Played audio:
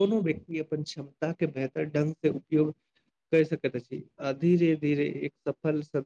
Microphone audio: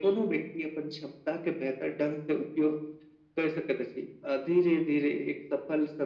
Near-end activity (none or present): none